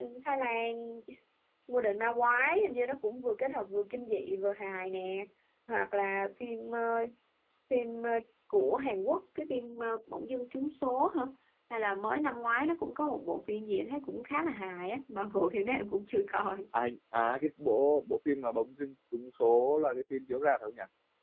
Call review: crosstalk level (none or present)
none